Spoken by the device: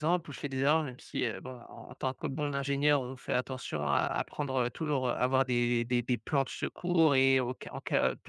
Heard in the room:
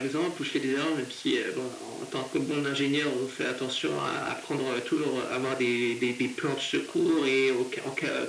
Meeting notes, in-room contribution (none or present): none